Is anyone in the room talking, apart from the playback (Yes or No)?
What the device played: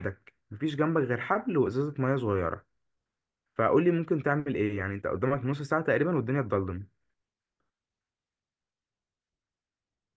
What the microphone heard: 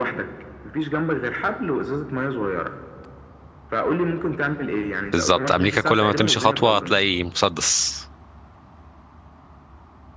Yes